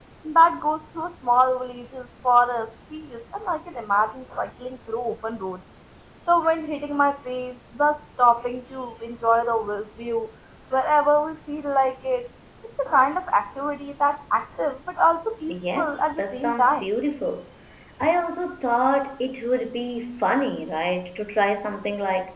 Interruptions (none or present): present